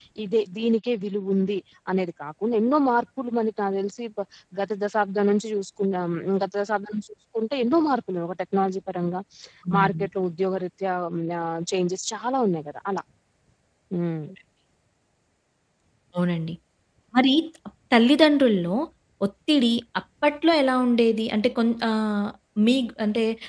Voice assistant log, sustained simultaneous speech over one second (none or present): none